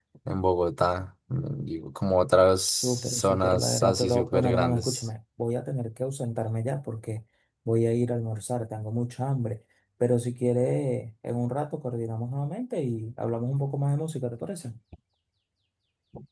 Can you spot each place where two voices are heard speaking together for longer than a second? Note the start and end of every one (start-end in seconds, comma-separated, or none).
2.7-5.1